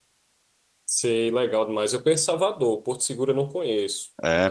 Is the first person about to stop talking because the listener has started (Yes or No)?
Yes